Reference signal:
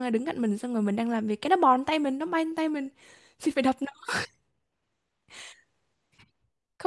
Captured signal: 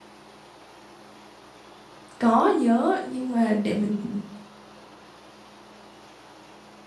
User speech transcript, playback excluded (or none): Có nhớ, nhưng mà để mình